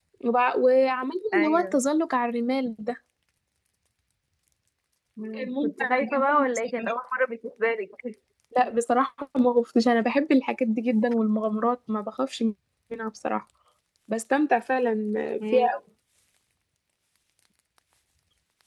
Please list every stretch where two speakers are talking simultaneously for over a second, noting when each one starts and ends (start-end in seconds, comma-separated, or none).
5.3-6.9